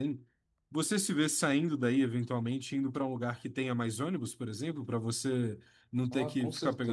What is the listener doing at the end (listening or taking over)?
taking over